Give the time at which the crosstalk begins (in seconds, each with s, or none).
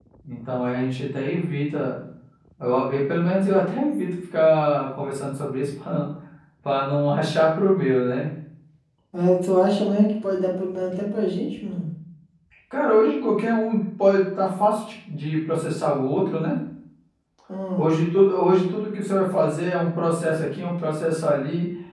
none